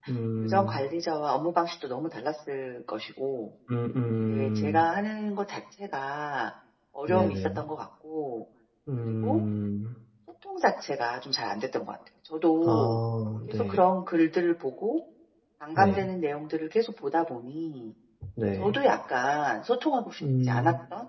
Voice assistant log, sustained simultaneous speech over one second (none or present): none